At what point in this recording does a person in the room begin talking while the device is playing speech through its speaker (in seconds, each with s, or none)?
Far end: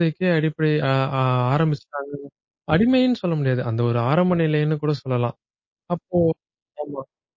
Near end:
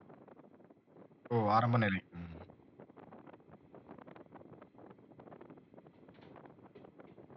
1.3 s